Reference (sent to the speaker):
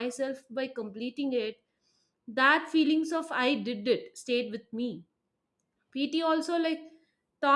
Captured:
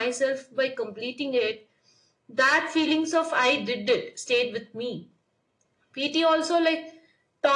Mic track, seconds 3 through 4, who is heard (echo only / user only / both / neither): echo only